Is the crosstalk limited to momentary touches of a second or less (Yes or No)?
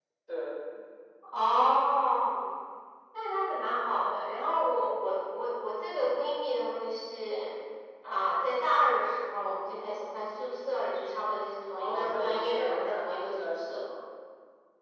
No